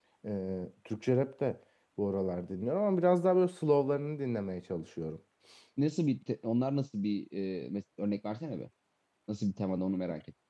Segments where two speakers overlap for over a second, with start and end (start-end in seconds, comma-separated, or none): none